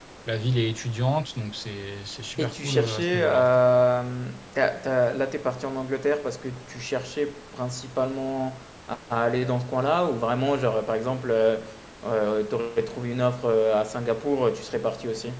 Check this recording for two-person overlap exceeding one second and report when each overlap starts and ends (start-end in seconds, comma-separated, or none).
2.4-3.6